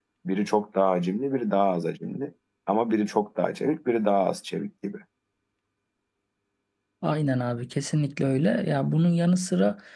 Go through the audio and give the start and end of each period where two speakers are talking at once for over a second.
none

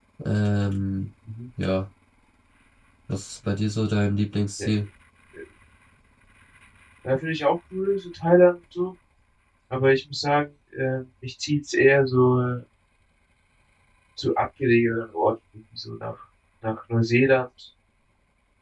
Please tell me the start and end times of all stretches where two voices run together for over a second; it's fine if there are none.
none

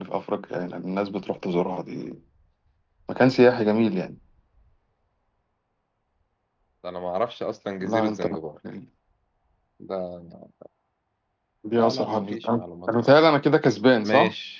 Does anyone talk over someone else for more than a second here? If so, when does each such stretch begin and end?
11.8-13.3

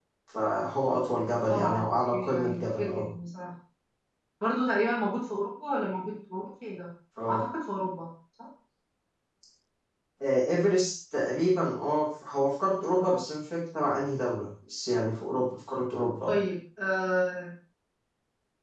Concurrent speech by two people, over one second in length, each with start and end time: 1.5-3.0

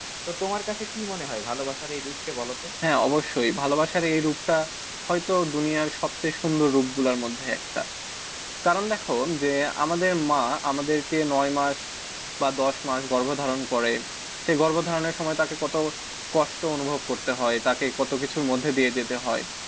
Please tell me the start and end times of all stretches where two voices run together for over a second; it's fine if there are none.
none

